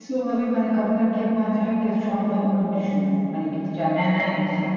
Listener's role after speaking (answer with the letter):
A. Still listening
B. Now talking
B